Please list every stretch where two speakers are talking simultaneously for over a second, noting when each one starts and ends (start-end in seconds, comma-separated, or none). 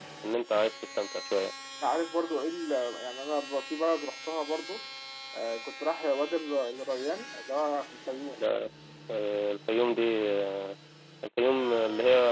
none